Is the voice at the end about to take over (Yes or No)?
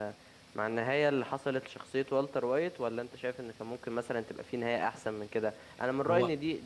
No